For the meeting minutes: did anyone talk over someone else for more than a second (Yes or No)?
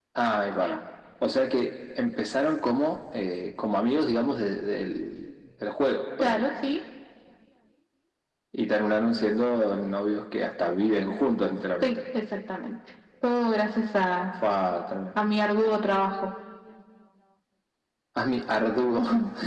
No